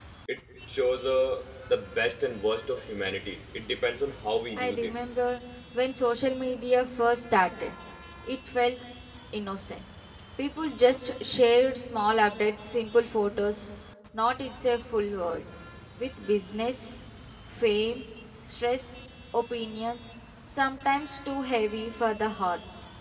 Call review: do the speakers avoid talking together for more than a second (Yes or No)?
Yes